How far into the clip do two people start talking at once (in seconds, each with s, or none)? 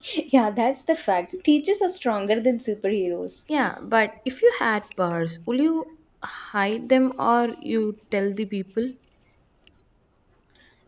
none